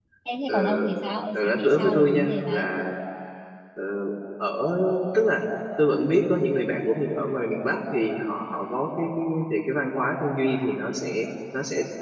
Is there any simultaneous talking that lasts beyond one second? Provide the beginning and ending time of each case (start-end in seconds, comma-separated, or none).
1.3-2.7